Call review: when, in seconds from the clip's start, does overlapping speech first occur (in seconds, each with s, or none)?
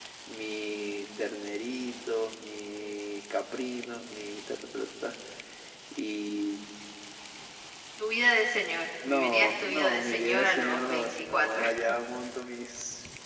9.0 s